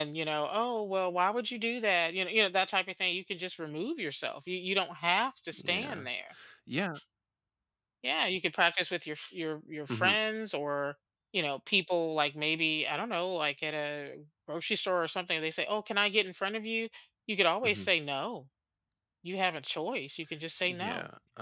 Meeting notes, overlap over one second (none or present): none